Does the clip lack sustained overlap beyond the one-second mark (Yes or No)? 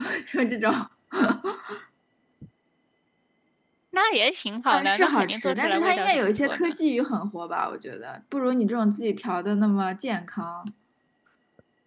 No